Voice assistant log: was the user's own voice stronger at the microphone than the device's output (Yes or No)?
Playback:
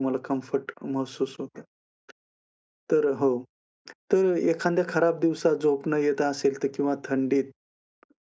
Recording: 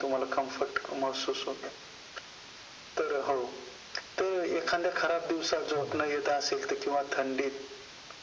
No